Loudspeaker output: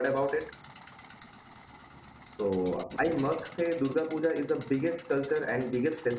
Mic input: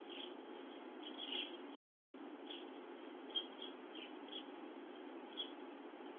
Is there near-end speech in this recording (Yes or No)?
No